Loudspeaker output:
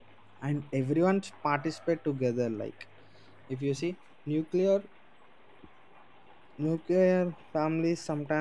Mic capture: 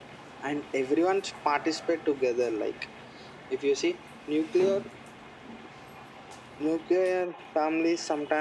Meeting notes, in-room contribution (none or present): none